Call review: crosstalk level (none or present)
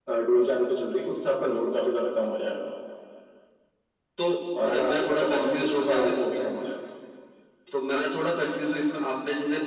present